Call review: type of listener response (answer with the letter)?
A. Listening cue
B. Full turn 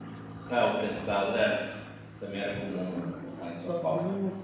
B